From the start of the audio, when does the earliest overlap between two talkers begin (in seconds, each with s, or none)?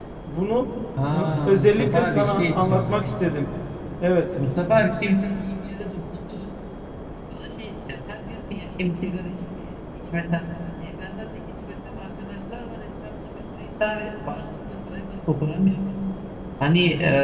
1.0 s